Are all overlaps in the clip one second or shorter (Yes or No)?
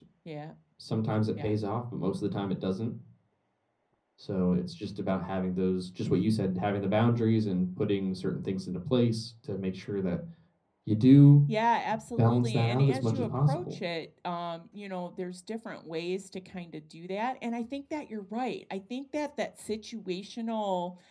No